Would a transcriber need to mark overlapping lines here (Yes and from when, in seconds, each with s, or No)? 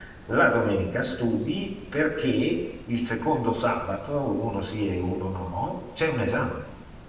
No